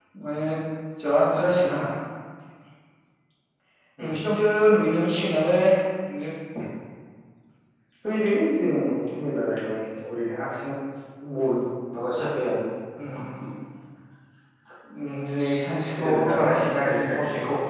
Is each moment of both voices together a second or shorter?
No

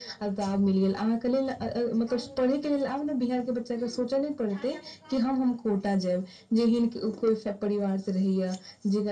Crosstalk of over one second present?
No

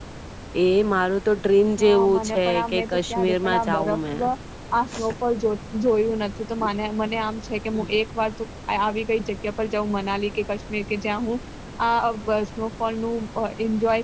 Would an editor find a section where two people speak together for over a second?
Yes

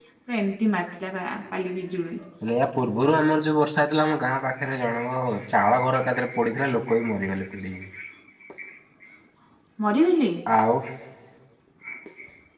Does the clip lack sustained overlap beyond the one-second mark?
Yes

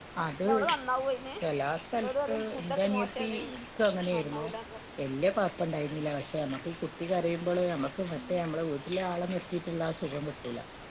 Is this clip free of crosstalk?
No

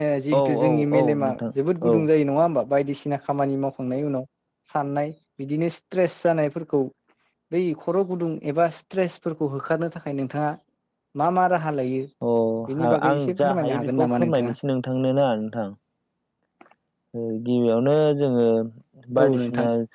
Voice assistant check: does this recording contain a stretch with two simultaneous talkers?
Yes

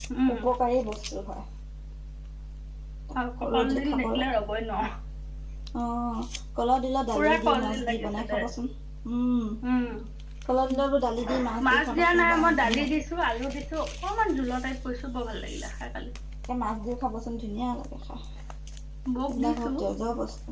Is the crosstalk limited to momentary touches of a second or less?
No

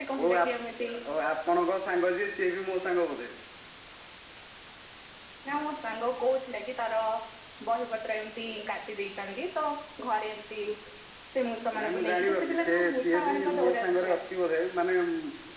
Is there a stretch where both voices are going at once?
Yes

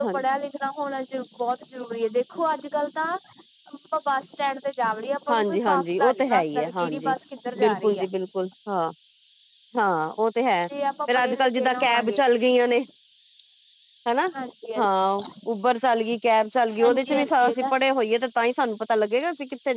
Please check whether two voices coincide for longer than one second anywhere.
Yes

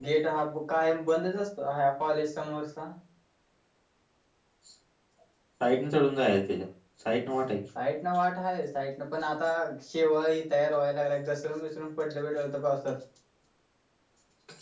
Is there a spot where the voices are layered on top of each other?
No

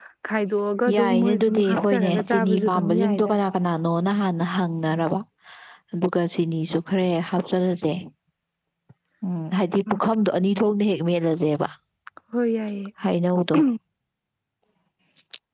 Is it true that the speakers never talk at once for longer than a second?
No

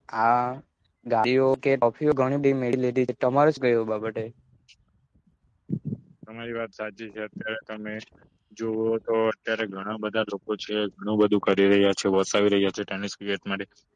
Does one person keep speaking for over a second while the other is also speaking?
No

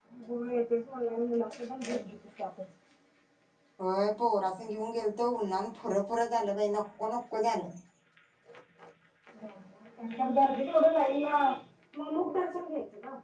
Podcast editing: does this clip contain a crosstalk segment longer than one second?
No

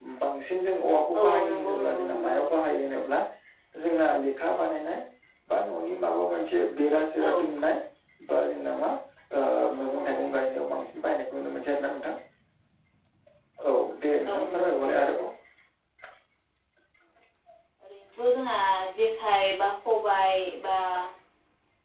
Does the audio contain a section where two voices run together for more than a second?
Yes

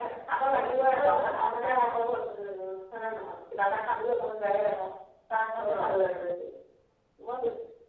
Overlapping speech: Yes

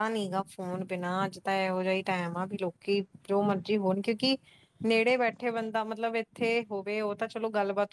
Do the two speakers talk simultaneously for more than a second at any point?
No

